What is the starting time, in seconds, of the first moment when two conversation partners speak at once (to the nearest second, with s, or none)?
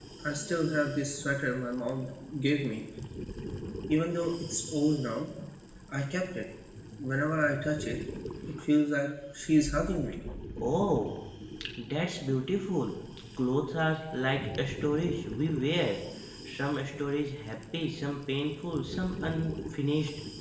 none